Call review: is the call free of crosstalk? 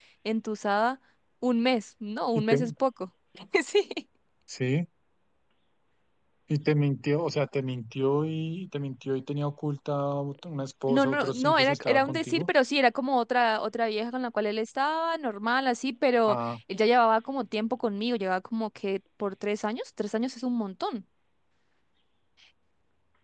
No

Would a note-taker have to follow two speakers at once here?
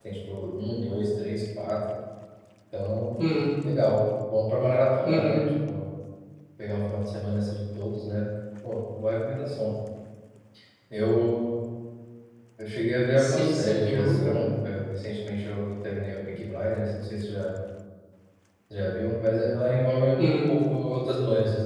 Yes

